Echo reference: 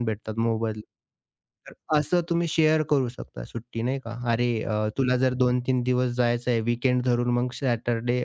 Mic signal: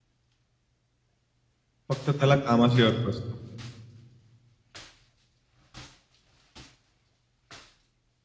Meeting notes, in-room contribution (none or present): present